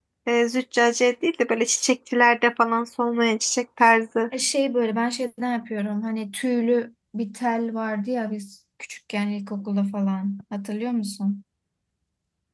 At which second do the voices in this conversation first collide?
none

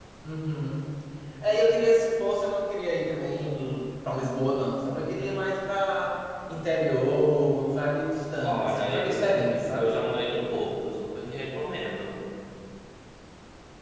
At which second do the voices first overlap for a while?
8.4 s

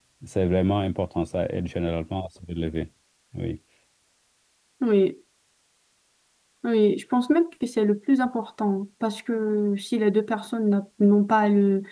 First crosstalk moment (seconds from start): none

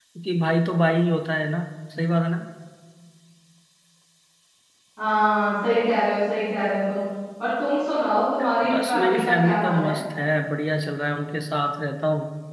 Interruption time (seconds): 8.7 s

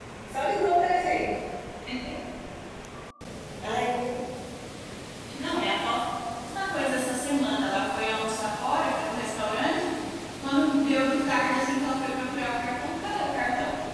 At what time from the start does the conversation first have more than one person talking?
none

